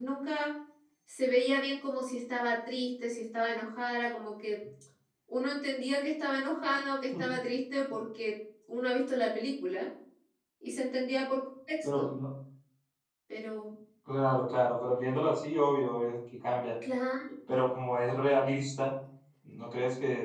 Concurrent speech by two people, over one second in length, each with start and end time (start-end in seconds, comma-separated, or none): none